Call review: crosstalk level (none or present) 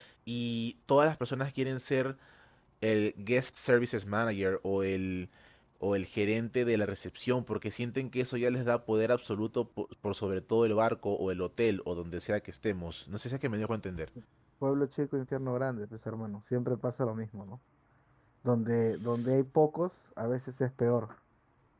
none